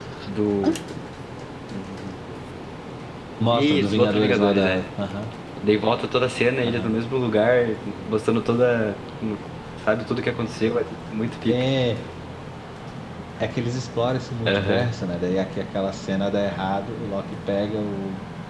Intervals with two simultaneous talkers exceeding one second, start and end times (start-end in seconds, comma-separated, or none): 3.5-4.8